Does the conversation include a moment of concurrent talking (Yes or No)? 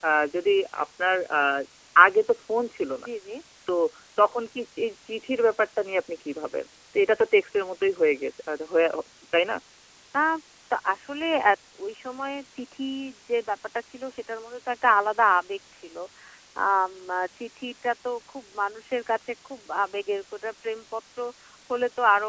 No